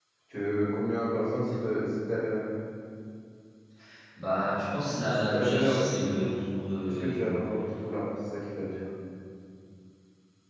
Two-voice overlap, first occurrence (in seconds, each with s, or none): 5.1 s